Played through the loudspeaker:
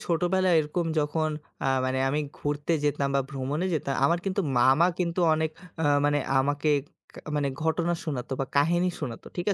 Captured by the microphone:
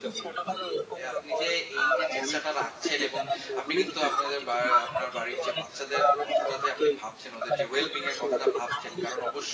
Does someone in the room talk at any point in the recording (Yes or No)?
Yes